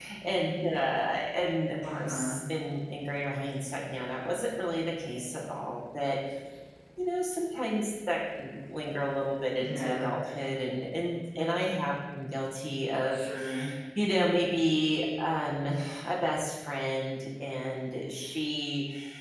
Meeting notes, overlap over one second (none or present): none